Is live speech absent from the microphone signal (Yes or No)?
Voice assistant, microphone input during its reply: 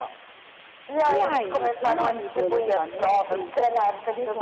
No